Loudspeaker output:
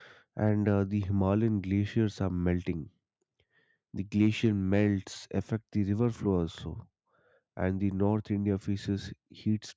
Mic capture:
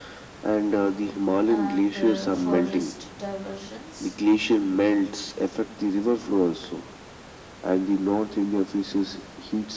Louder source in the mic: echo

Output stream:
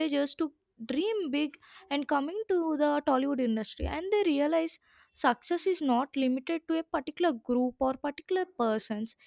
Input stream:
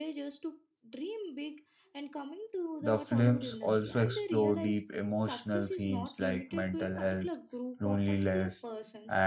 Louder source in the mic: user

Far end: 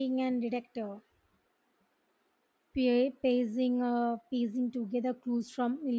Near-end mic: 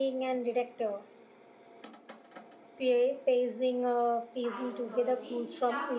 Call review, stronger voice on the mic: echo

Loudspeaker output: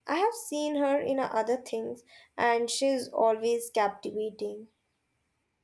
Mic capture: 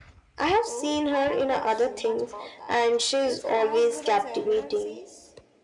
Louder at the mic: echo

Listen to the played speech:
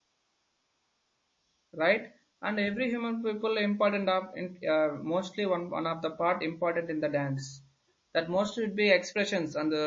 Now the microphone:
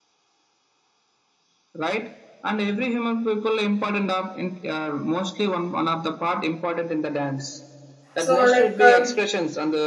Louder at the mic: user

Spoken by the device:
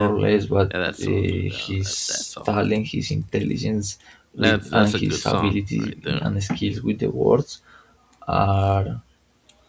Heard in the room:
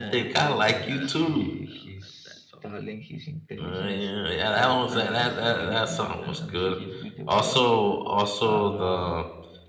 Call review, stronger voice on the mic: user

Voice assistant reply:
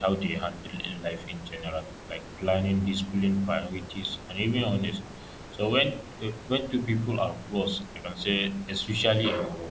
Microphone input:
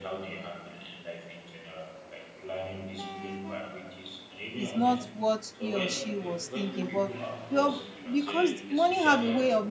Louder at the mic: user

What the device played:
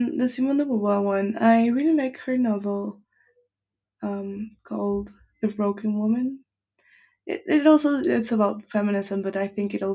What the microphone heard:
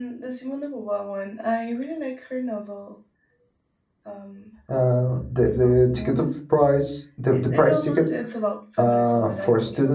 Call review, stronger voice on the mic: user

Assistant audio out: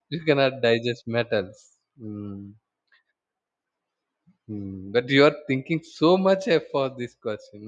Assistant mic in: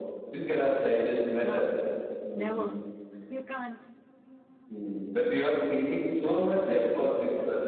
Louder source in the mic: echo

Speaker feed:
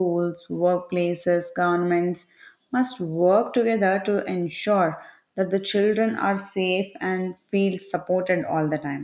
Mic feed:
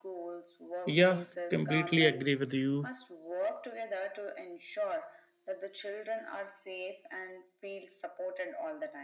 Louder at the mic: user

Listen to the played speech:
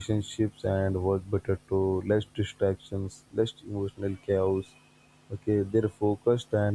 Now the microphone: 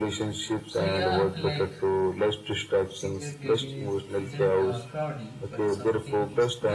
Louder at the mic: echo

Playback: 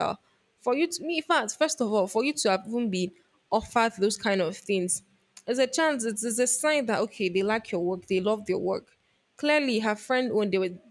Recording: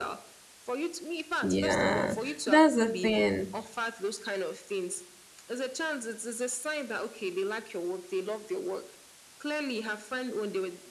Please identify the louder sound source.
user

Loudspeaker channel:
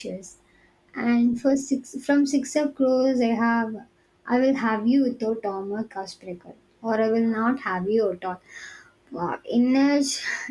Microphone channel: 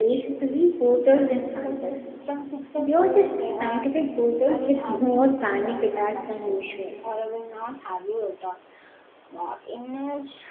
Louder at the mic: user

